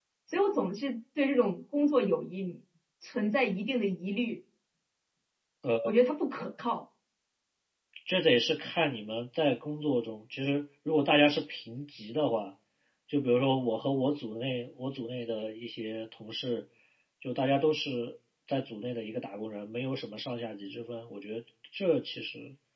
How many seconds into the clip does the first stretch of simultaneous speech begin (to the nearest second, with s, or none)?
none